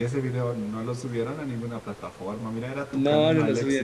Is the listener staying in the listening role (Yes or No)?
No